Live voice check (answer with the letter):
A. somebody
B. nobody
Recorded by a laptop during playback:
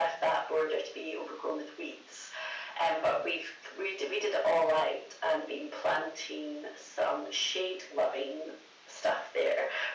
B